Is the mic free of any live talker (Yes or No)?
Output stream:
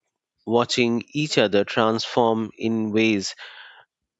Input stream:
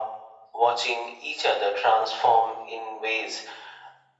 Yes